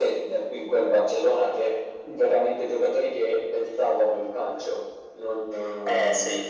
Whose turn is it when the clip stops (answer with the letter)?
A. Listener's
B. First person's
A